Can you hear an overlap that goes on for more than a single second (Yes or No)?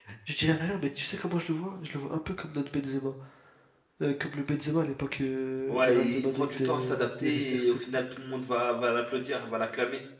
Yes